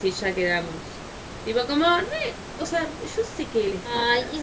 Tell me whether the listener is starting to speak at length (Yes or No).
Yes